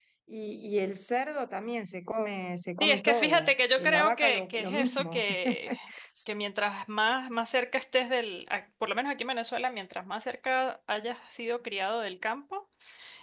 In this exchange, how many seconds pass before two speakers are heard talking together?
2.8 s

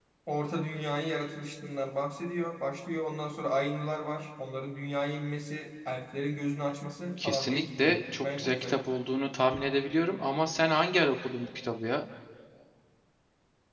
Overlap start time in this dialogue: 7.2 s

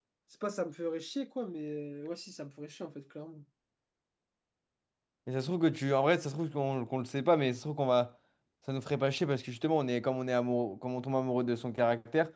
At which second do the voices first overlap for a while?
none

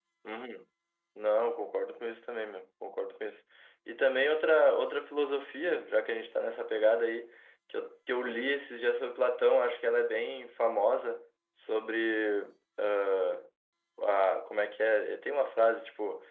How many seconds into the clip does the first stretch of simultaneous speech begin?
none

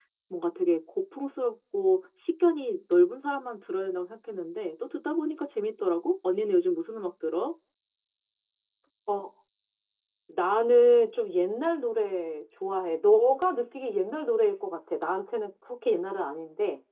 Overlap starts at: none

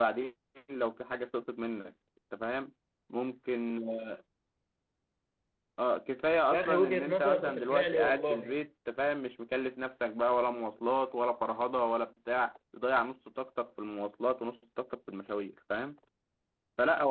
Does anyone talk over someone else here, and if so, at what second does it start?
6.5 s

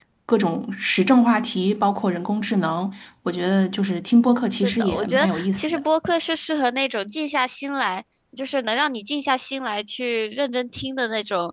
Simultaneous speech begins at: 4.5 s

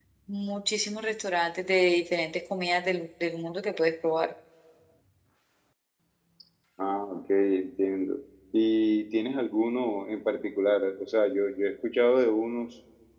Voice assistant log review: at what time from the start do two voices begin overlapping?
none

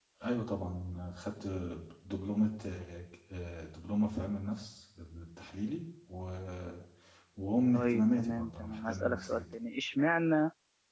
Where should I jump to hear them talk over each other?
7.7 s

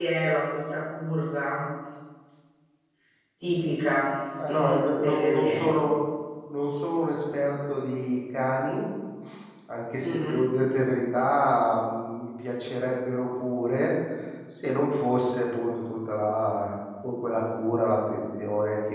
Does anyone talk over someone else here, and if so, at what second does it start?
4.5 s

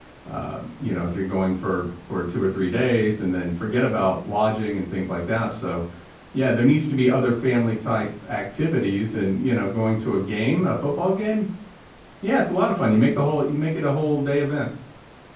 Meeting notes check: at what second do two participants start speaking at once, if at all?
none

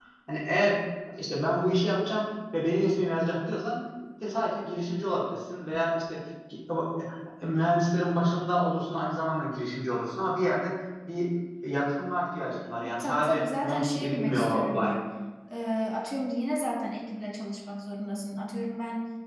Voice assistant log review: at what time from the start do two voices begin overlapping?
12.8 s

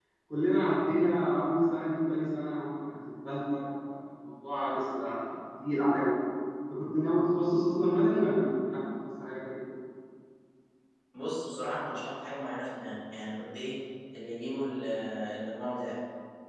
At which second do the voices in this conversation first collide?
none

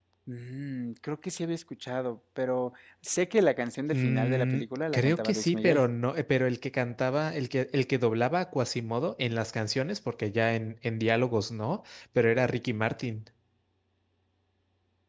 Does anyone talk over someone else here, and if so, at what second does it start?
3.9 s

